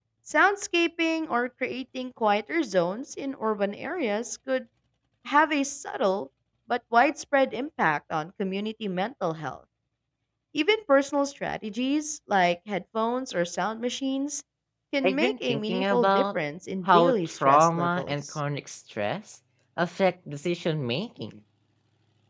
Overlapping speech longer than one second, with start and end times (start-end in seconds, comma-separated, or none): 15.0-16.4, 16.9-18.4